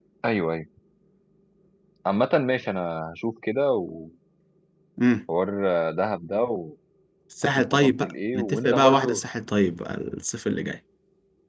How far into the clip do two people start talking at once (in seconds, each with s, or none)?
7.7 s